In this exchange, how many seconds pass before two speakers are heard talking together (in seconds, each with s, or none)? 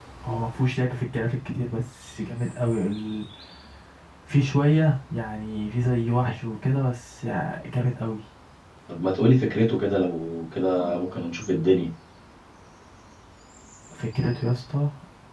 none